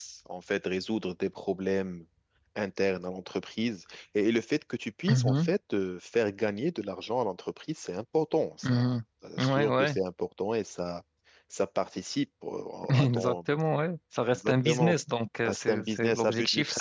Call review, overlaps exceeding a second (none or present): present